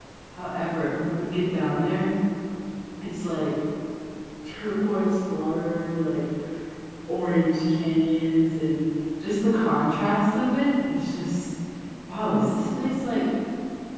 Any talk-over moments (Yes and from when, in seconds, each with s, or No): No